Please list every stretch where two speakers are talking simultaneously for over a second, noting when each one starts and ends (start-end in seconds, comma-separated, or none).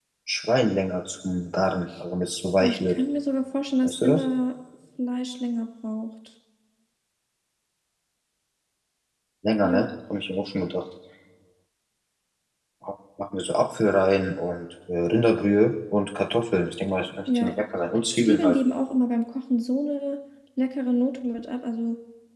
none